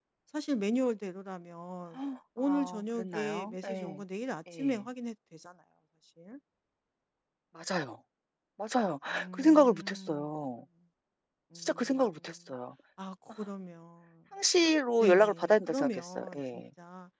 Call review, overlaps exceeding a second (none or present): present